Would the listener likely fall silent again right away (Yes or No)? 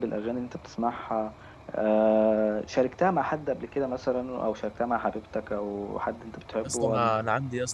No